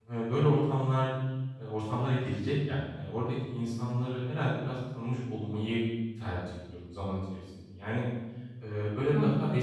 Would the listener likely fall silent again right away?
Yes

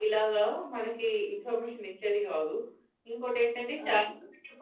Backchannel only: Yes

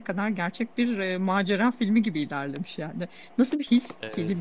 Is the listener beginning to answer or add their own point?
No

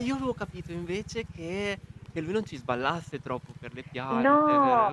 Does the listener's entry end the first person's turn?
Yes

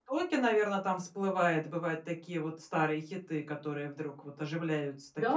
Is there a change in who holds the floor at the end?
Yes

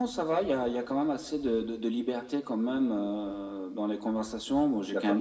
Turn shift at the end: No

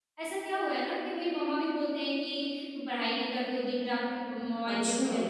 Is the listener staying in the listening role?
Yes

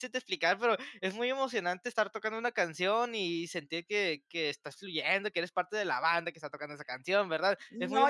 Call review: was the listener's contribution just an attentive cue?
No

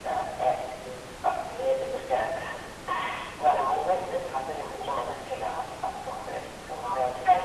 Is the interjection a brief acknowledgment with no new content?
No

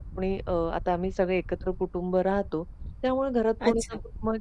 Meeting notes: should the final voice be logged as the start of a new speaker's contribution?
No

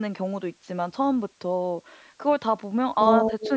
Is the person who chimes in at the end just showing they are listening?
Yes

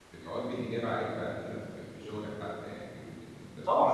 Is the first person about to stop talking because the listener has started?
Yes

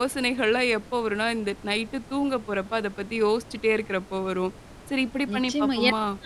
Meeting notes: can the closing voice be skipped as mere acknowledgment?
No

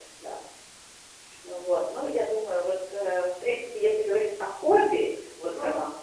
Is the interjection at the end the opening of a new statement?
No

